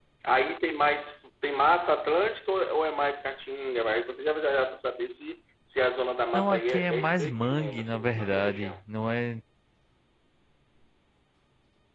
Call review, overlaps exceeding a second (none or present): present